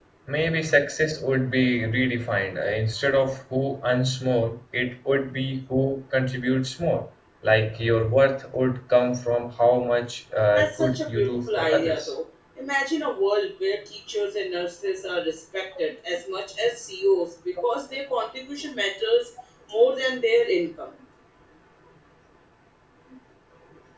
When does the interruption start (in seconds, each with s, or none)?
10.5 s